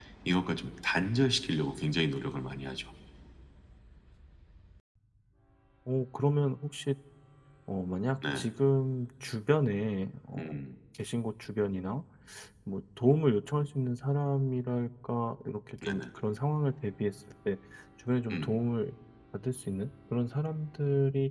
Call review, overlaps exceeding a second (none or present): none